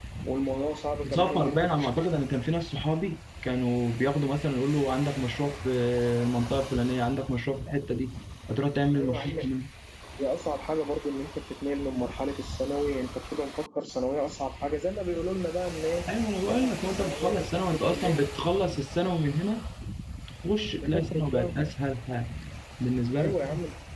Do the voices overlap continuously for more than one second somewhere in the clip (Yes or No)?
Yes